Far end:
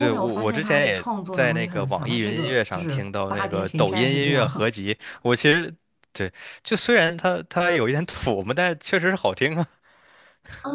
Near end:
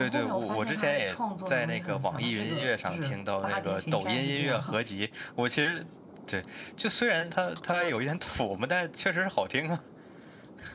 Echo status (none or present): present